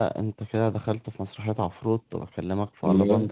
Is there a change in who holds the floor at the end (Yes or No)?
No